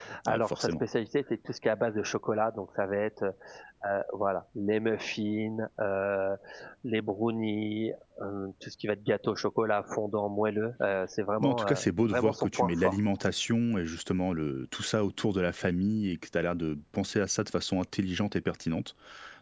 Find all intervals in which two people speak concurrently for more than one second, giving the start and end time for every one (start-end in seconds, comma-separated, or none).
11.4-13.0